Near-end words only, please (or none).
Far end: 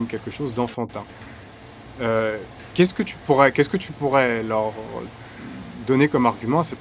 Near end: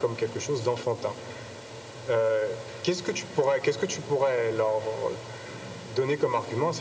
none